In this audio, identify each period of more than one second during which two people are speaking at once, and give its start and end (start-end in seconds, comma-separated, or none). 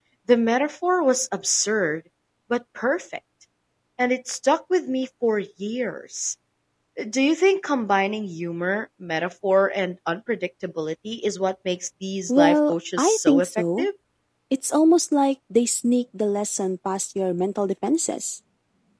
12.3-13.9